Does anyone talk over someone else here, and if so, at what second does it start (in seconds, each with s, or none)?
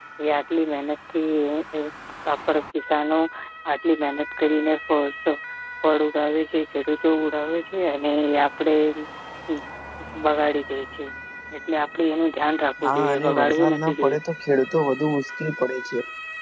12.8 s